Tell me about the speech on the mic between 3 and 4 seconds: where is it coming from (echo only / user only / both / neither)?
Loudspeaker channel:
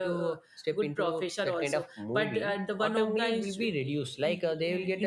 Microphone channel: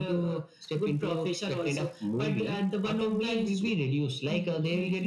echo only